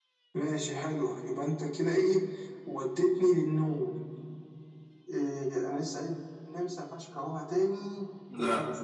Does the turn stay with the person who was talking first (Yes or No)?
Yes